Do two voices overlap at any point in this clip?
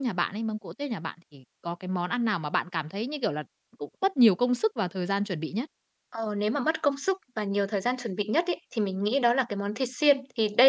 No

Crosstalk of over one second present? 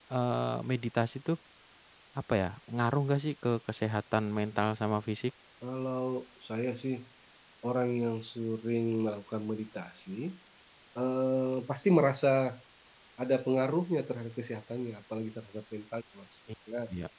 No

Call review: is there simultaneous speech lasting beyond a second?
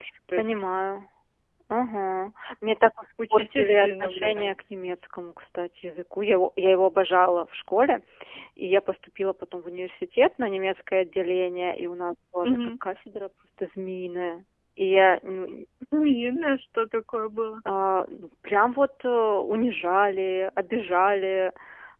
Yes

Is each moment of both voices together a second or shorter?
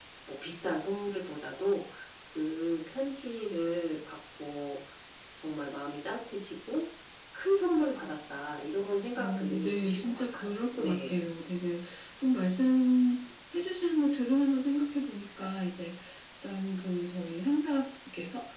No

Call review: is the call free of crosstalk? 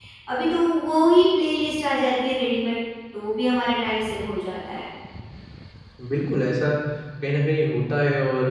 Yes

